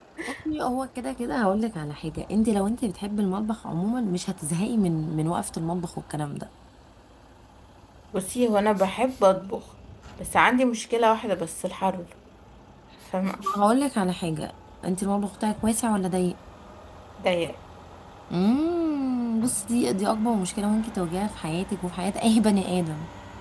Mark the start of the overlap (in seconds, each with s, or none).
none